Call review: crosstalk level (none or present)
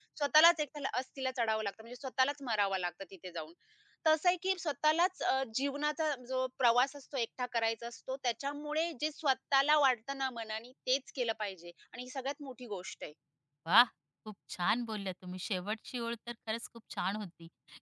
none